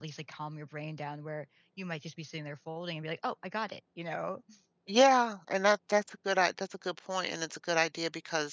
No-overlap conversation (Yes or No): Yes